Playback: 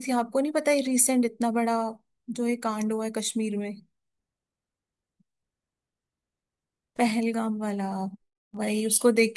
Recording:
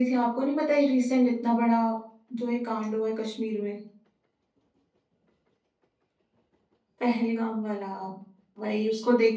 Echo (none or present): present